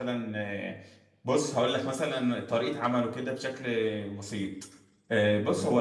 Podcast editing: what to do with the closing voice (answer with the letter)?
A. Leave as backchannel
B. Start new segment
A